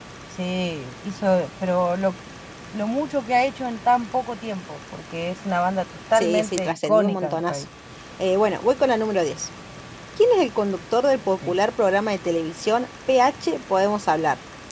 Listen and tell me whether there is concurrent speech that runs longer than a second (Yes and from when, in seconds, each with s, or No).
Yes, from 6.2 s